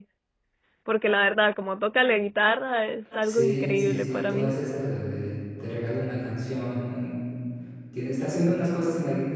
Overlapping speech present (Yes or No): Yes